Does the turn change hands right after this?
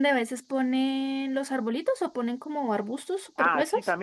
Yes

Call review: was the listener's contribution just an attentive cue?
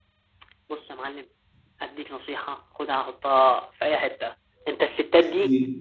Yes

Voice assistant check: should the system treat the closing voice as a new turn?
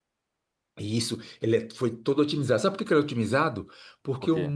No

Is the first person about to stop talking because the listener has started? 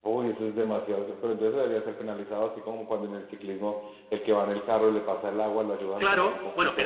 Yes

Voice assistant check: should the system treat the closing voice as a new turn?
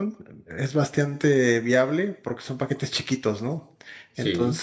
No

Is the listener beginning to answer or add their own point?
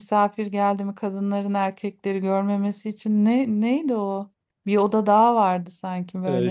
Yes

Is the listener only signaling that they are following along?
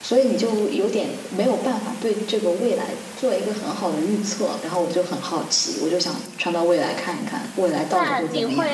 No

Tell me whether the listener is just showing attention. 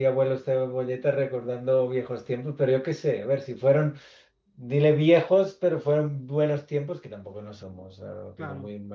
No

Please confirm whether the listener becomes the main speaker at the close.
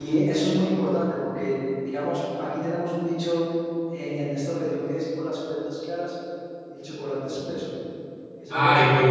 Yes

